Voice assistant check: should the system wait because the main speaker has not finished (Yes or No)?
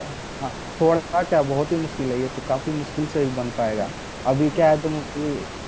Yes